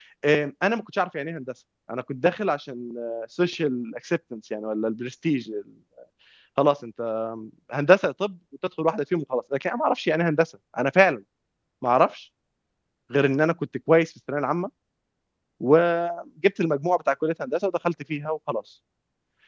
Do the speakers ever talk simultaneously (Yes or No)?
No